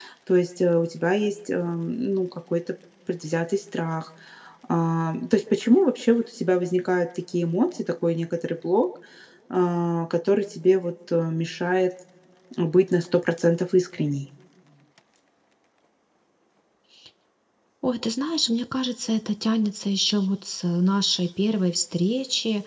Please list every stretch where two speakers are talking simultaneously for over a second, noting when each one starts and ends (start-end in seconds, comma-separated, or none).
none